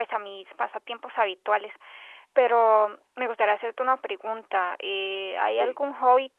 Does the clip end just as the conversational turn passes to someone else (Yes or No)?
No